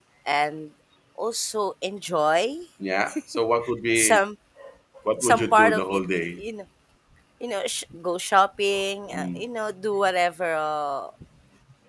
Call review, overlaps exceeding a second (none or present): present